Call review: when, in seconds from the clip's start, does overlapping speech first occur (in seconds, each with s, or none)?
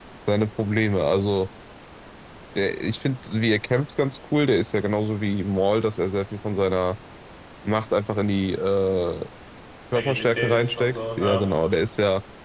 9.9 s